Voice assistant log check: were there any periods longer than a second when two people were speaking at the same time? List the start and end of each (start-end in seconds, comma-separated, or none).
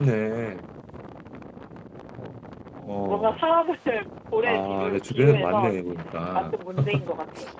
4.4-5.7